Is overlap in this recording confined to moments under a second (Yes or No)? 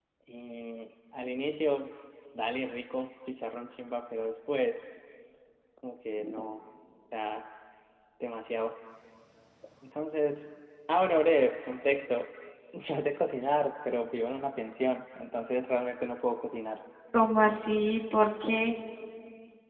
Yes